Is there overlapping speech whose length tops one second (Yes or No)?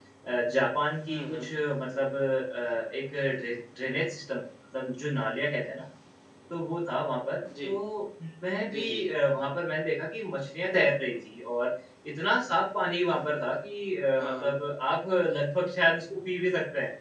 No